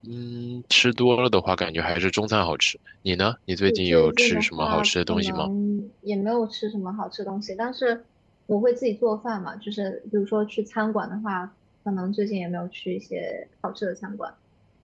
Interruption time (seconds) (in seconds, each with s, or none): 3.7 s